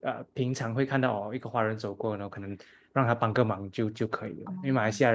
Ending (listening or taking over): listening